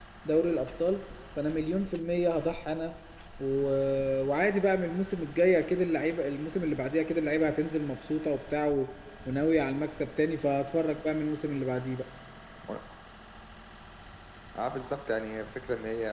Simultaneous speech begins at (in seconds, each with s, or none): none